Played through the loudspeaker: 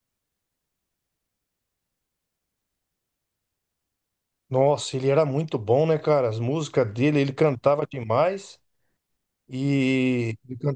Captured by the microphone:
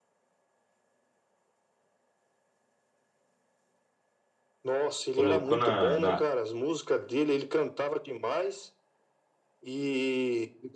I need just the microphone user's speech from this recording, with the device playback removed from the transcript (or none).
Colocou na, na,